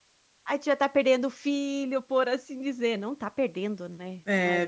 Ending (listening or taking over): taking over